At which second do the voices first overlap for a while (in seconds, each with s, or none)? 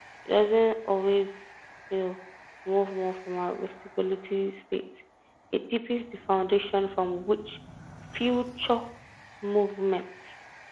none